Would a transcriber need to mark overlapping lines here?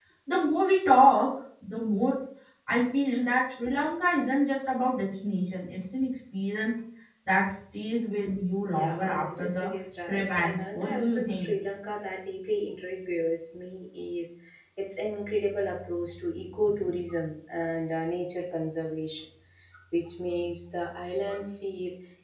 Yes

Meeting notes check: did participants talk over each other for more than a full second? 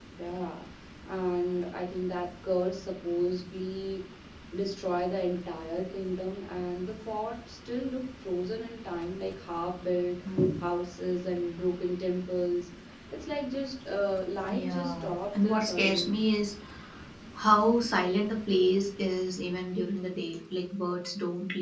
Yes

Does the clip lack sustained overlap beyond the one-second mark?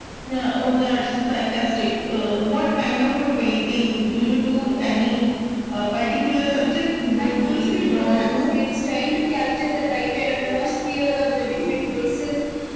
No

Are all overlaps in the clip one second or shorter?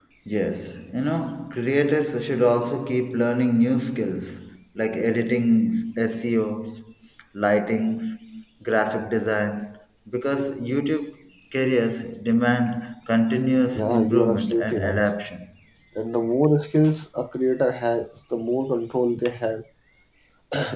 No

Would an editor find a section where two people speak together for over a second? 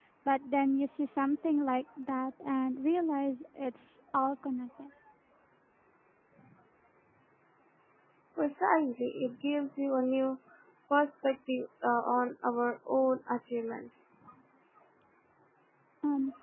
No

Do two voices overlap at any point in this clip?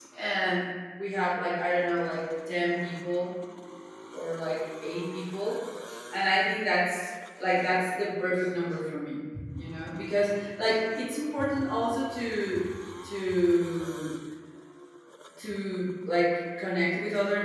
No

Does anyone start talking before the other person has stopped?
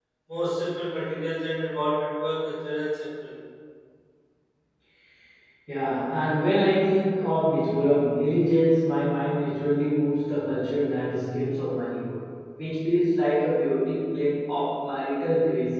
No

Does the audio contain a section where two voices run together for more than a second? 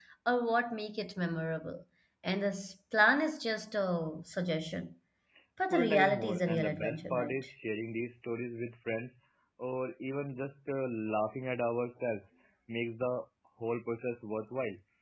Yes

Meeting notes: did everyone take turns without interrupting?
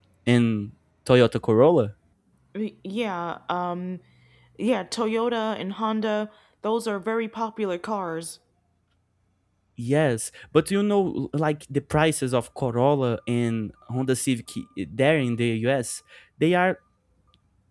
Yes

